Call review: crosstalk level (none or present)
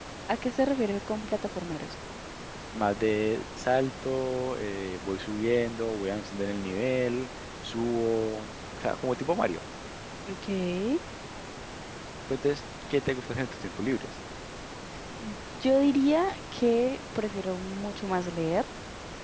none